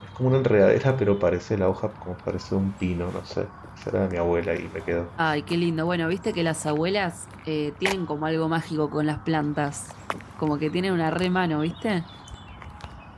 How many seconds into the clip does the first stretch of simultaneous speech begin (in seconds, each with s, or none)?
none